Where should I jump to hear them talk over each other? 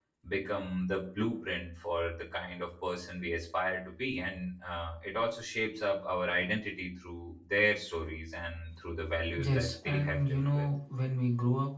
9.4 s

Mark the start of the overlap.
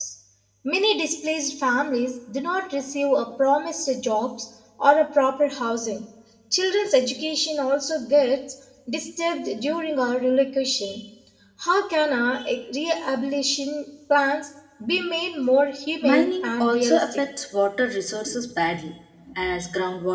16.0 s

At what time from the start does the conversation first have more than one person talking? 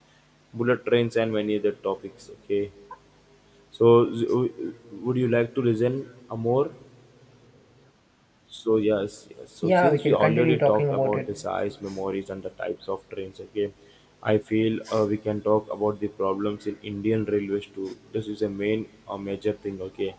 9.6 s

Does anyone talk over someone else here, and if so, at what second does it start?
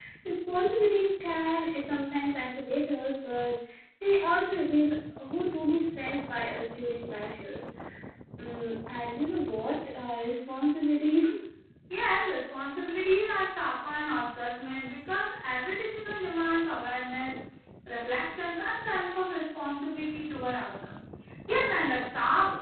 none

